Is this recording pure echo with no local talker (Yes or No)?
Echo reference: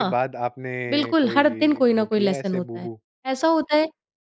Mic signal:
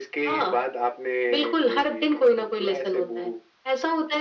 Yes